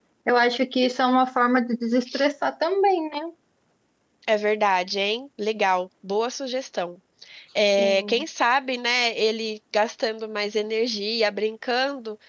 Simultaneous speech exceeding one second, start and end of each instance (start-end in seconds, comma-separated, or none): none